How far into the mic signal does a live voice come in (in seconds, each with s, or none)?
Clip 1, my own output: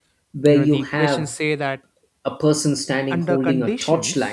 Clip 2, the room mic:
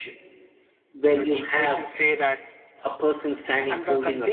none